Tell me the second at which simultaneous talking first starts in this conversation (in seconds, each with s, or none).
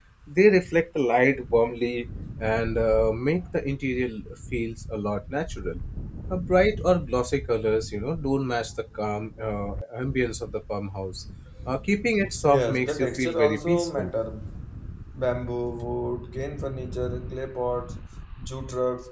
12.4 s